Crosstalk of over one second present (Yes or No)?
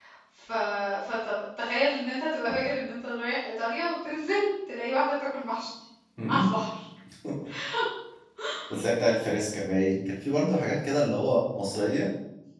No